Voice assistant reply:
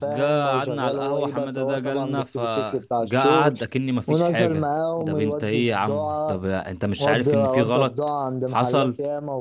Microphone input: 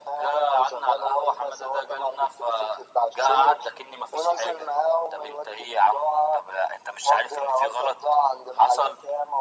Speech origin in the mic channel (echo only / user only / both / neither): echo only